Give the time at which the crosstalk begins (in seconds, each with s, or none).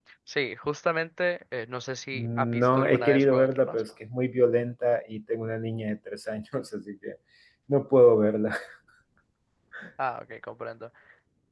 2.1 s